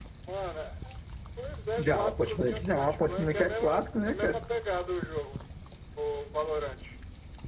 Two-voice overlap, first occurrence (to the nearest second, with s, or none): 2 s